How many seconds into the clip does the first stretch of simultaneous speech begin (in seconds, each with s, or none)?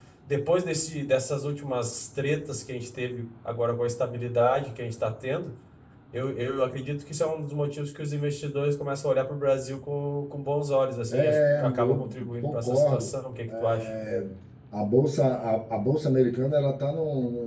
11.1 s